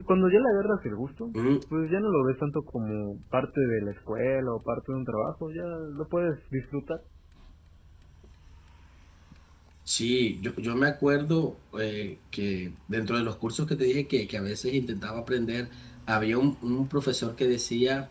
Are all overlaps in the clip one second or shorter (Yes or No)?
Yes